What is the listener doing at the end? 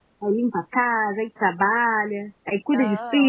taking over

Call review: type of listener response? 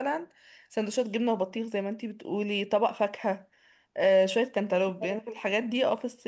listening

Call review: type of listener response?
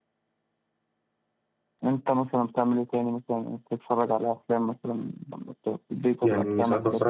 taking over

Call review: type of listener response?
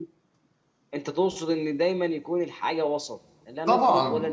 taking over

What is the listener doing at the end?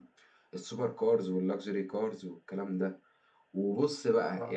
listening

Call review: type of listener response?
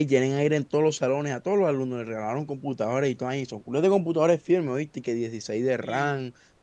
listening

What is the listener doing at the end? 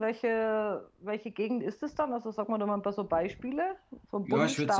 taking over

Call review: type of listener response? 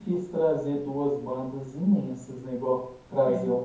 listening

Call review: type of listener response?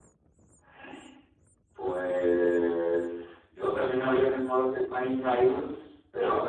listening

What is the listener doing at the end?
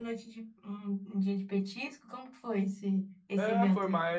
taking over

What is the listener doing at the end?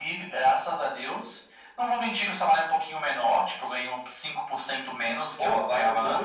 taking over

